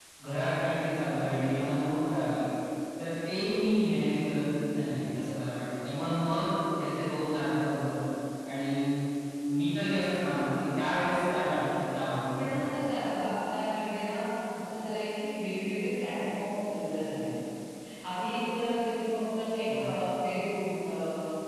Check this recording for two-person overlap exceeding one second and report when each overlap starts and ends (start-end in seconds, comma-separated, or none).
none